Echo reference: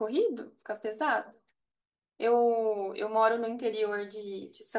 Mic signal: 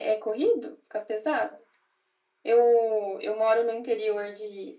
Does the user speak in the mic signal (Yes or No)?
No